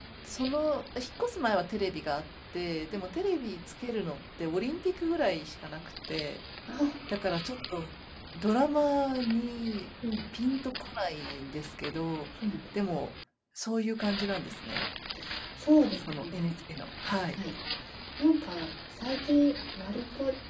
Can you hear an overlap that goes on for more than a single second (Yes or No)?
No